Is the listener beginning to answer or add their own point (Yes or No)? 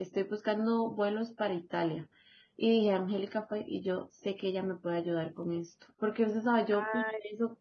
No